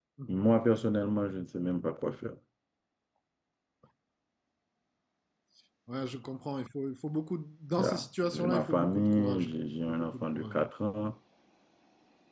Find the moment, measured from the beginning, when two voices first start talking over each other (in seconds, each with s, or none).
7.8 s